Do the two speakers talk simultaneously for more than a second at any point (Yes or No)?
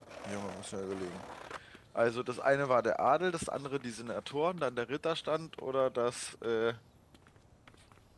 No